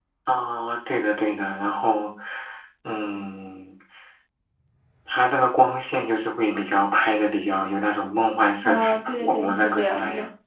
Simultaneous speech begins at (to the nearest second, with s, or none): 9 s